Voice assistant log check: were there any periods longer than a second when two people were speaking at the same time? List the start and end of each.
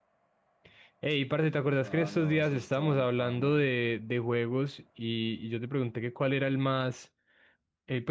1.8-3.6

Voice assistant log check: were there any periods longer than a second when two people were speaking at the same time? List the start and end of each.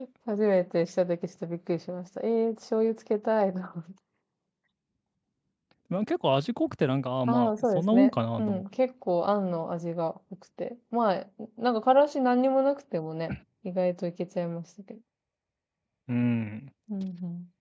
7.3-8.6

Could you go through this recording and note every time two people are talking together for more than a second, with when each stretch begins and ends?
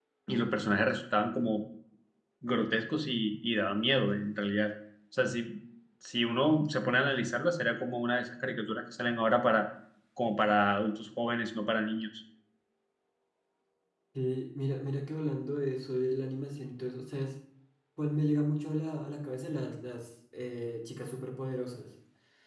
none

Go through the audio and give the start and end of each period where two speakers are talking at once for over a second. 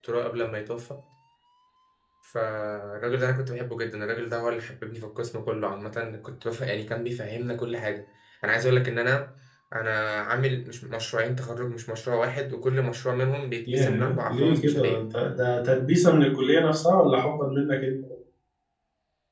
13.7-15.0

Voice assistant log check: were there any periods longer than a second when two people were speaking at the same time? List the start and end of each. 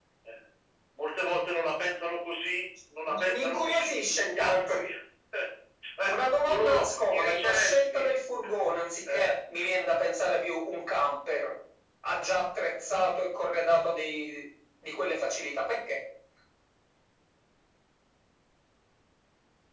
3.3-4.8, 6.1-8.1

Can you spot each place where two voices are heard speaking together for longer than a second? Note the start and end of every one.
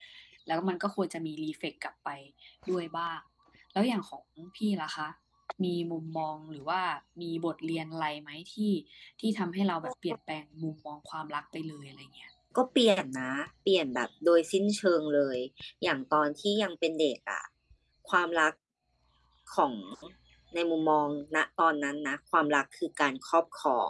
none

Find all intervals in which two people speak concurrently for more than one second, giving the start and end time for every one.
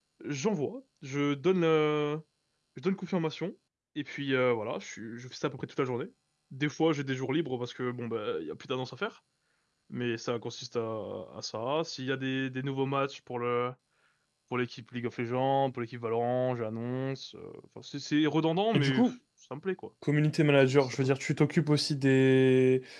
none

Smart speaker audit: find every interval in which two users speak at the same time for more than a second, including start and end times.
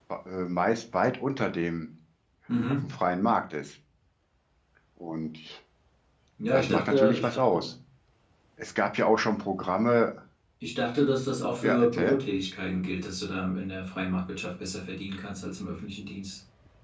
6.5-7.7

